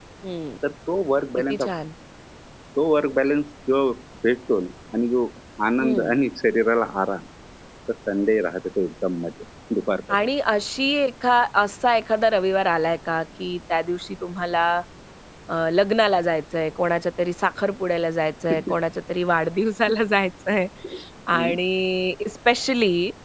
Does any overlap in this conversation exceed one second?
No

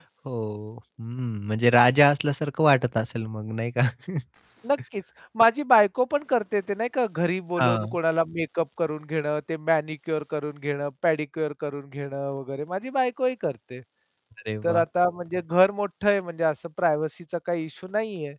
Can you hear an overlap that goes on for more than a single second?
No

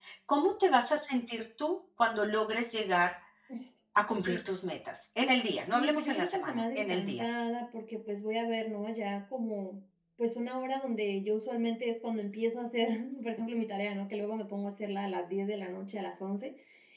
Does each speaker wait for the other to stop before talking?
No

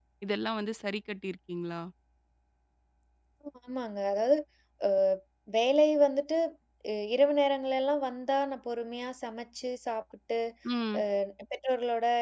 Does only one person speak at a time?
Yes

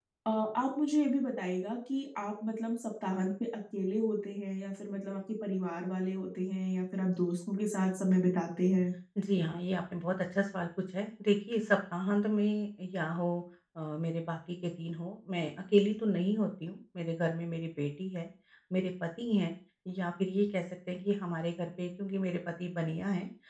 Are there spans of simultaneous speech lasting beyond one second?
No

